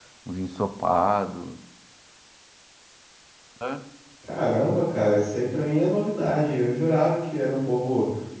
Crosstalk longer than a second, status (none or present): none